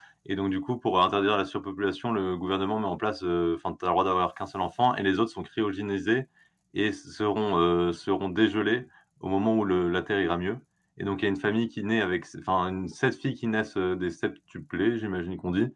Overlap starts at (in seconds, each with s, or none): none